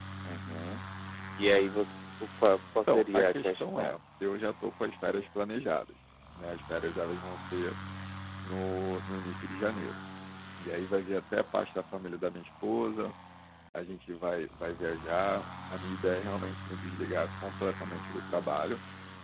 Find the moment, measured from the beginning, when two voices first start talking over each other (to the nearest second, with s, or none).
3 s